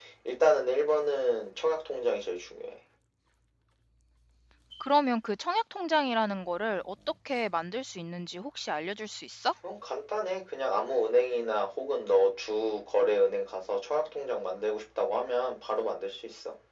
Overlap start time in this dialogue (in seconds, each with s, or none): none